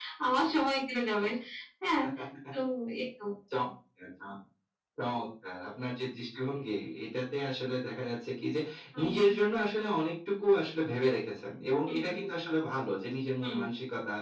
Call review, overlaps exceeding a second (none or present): none